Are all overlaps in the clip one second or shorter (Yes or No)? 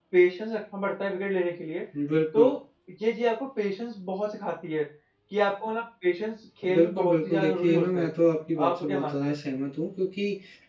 No